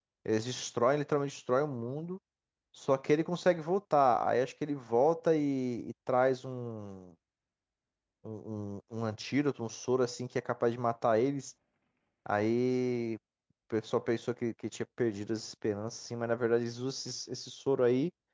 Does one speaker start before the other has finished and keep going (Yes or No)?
No